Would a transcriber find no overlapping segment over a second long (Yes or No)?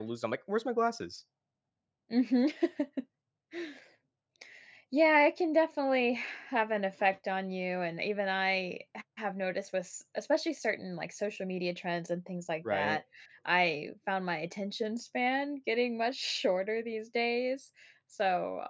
Yes